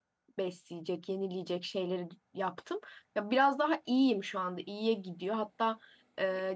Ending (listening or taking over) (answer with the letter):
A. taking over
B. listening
B